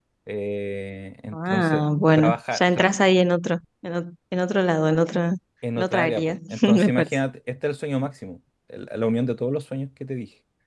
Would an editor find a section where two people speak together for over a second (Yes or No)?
Yes